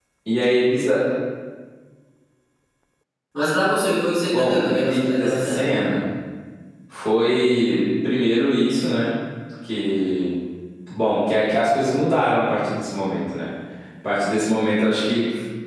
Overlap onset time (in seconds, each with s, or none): 4.3 s